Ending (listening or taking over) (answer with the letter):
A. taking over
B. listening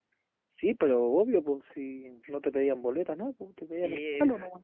A